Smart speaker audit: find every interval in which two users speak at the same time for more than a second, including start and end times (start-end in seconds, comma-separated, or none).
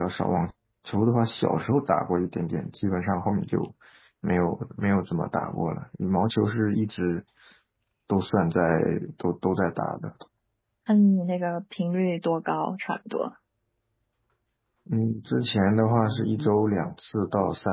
none